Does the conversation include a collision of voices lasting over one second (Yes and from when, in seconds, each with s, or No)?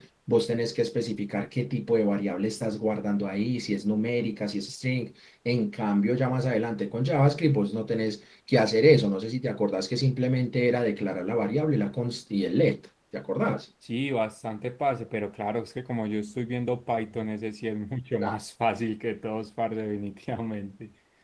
No